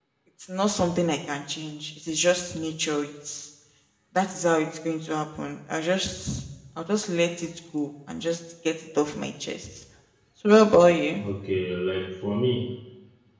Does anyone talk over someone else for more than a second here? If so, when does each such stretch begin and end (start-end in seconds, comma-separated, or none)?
none